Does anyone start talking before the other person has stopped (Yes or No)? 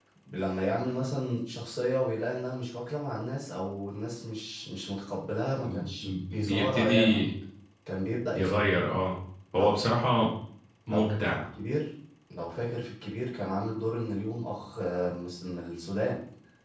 Yes